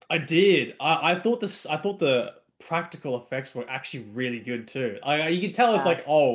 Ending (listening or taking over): listening